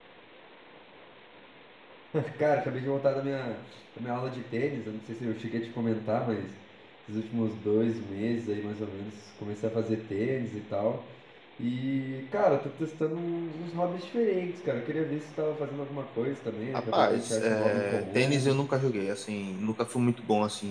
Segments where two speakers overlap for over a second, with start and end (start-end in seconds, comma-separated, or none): 16.9-18.6